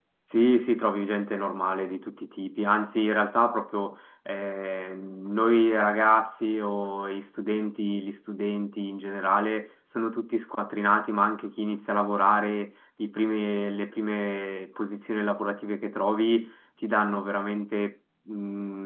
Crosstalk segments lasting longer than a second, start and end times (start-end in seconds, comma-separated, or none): none